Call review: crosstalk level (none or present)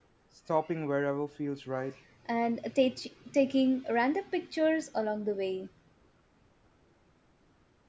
none